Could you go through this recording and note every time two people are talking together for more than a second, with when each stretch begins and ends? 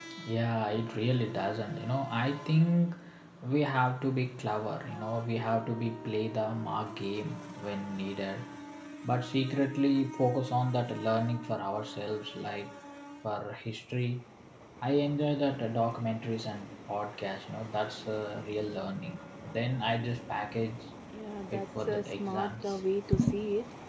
21.5-22.8

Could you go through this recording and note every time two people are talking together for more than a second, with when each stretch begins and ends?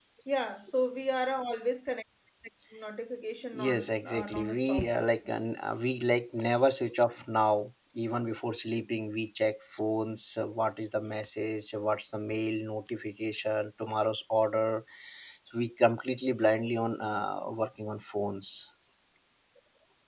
3.5-4.9

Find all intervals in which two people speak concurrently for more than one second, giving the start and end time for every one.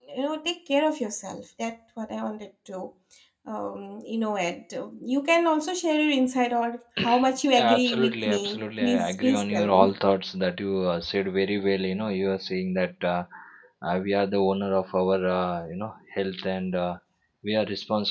7.7-9.9

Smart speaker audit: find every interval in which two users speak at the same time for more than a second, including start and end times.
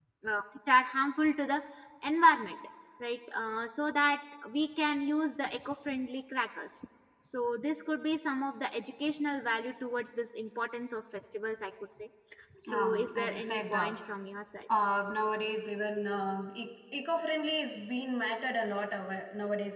12.7-13.9

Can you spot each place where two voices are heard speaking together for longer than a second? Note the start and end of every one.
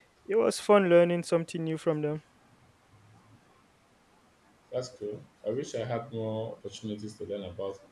none

